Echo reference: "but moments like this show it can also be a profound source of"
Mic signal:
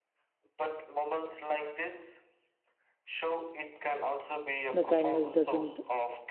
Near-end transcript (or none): the kindness doesn't